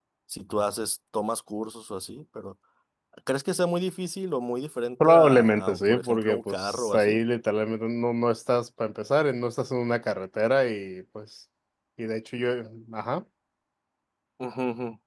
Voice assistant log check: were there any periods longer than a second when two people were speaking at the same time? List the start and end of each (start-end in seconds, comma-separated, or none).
5.0-7.2